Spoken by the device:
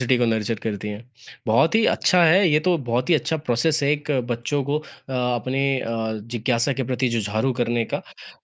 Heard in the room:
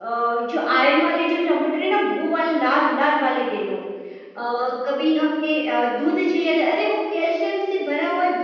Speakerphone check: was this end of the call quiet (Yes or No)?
No